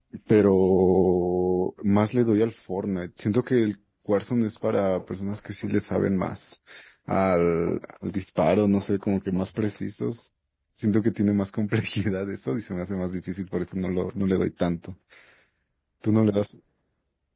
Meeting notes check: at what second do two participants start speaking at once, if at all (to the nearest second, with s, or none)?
none